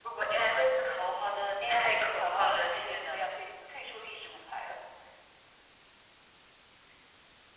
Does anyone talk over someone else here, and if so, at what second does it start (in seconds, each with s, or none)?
1.6 s